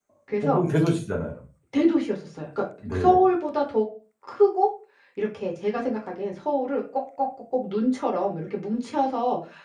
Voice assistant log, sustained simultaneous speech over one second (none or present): none